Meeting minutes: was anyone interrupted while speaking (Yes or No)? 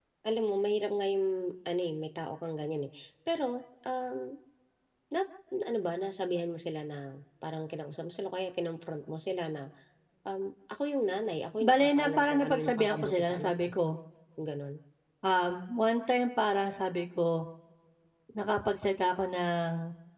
Yes